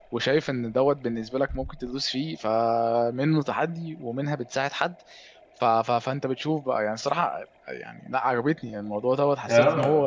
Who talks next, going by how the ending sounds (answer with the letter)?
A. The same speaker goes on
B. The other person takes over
A